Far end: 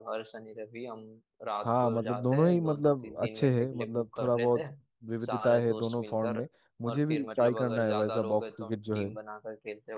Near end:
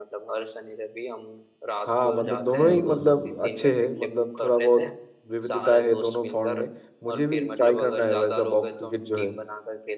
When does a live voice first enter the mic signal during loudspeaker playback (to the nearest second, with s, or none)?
2 s